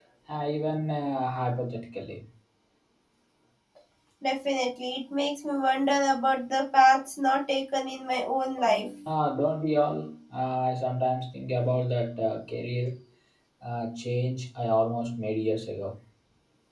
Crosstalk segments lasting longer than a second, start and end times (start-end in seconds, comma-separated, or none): none